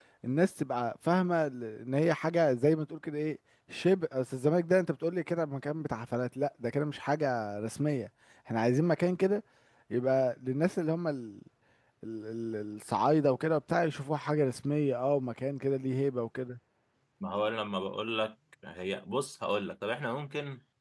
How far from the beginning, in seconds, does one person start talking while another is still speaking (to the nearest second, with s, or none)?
none